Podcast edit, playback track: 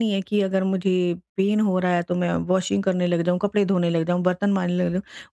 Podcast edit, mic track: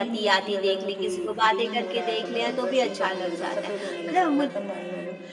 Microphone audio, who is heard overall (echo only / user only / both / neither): both